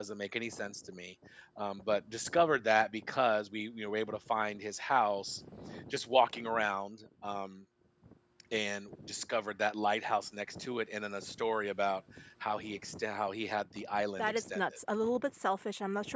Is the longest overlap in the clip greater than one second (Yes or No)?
No